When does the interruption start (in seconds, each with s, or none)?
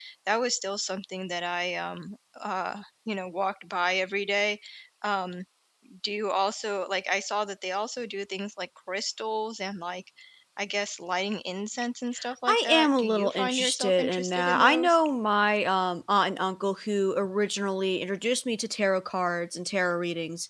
12.5 s